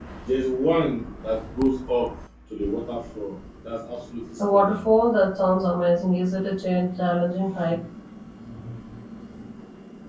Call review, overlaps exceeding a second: none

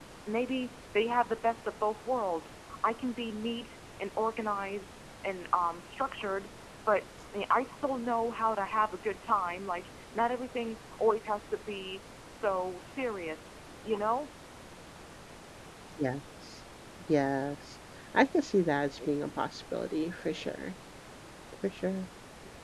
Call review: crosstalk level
none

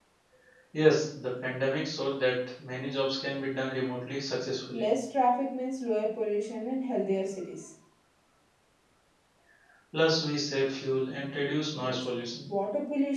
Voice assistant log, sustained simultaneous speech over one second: none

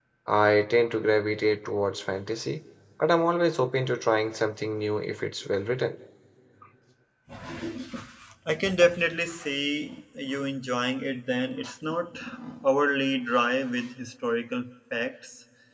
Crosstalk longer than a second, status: none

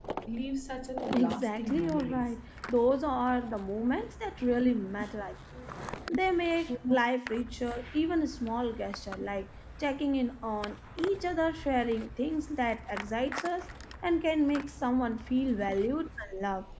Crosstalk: present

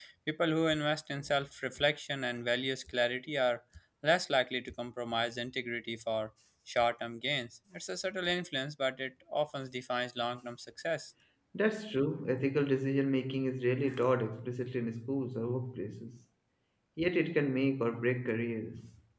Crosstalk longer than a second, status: none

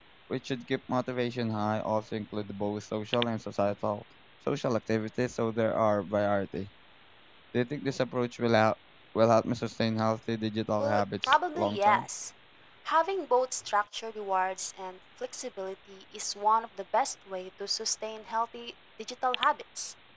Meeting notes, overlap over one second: present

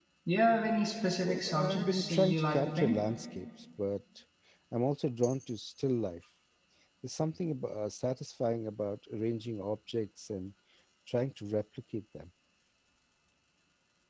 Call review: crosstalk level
present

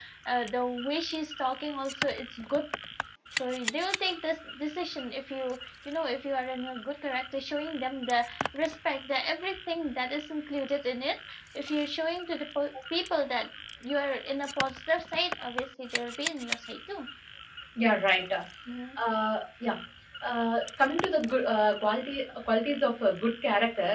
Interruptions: none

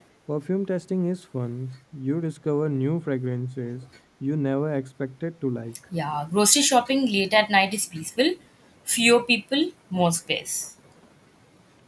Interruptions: none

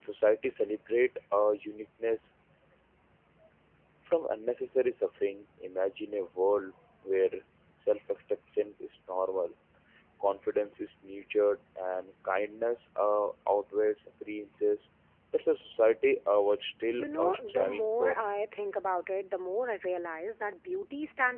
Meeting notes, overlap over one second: present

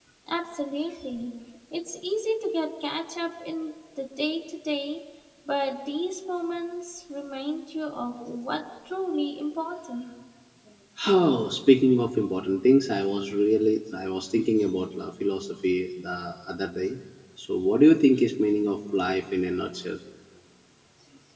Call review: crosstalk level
none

